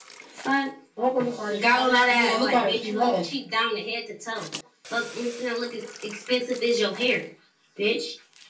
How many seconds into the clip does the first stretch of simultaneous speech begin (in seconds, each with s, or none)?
1.6 s